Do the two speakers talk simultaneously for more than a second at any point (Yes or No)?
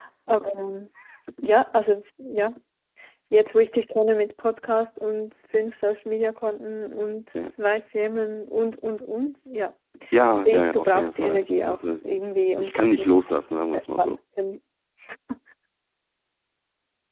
Yes